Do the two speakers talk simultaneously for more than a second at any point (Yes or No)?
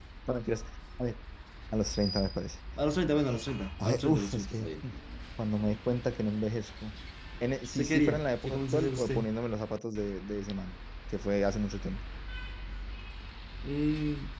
Yes